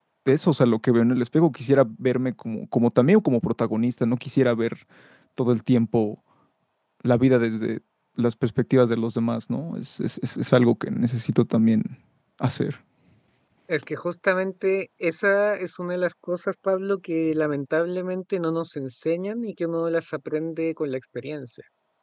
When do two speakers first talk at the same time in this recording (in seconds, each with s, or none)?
none